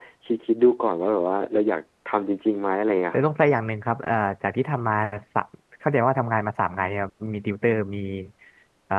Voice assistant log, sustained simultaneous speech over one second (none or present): none